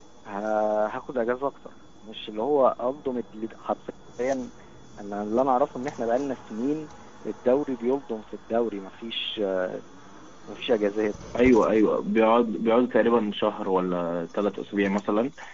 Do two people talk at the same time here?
No

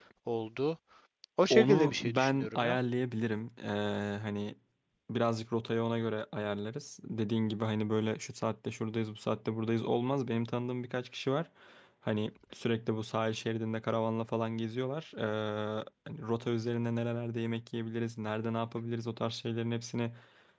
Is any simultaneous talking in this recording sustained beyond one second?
Yes, from 1.5 s

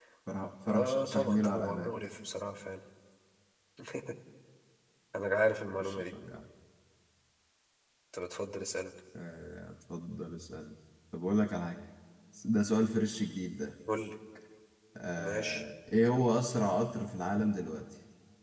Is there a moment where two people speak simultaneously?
Yes, from 0.7 s

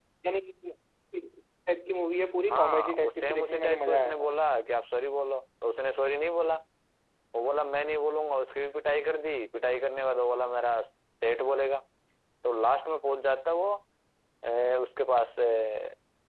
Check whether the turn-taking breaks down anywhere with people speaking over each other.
Yes, from 2.5 s

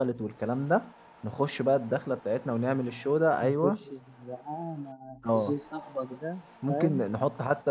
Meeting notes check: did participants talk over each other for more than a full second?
No

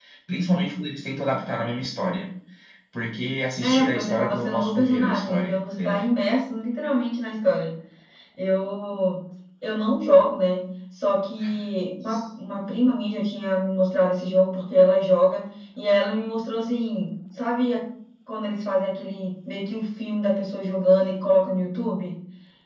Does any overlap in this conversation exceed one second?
Yes, from 3.6 s

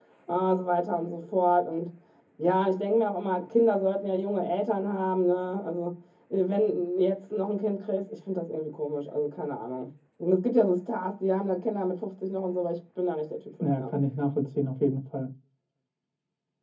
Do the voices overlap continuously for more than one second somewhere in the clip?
No

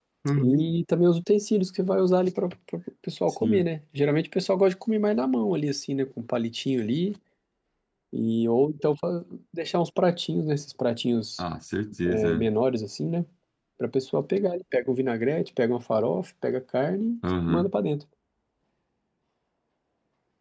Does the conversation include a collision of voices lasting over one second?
No

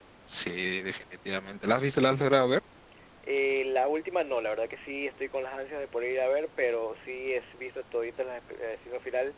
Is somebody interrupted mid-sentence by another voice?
No

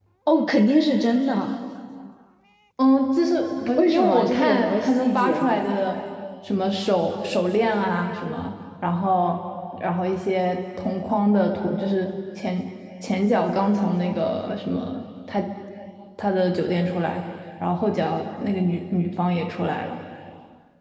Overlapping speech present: Yes, from 3.8 s

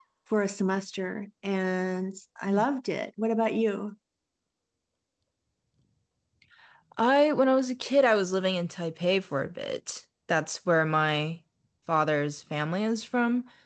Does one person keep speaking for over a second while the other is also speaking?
No

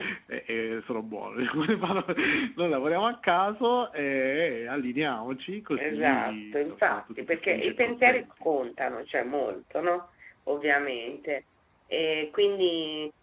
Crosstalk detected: Yes, from 5.8 s

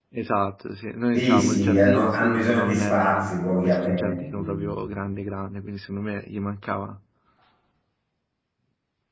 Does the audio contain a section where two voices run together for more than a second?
Yes, from 1.1 s

